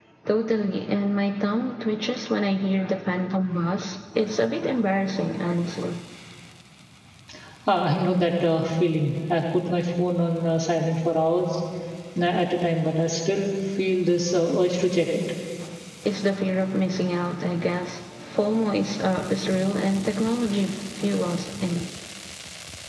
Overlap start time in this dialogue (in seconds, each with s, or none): none